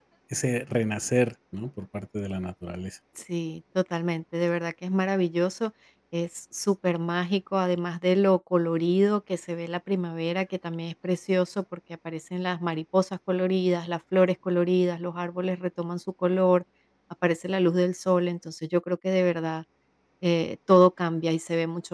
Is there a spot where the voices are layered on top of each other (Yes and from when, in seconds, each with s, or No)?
No